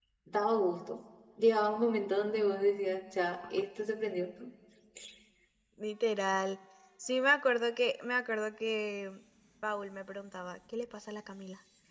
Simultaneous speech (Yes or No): No